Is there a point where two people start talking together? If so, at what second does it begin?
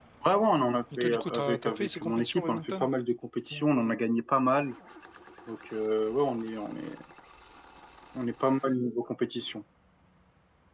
1 s

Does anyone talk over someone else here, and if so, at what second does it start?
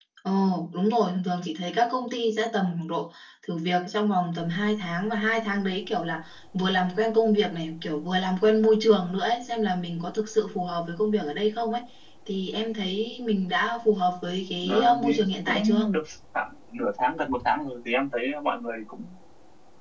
15 s

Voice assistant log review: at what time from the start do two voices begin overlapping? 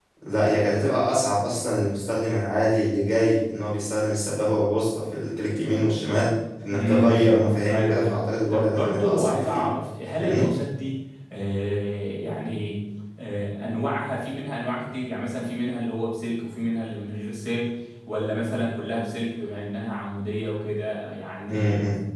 7 s

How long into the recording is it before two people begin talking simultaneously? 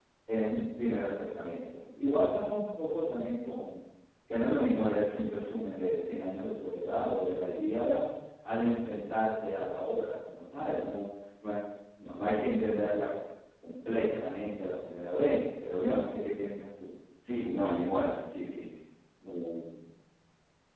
none

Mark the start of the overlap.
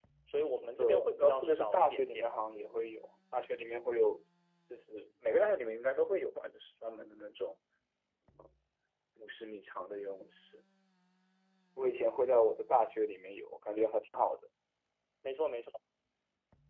1 s

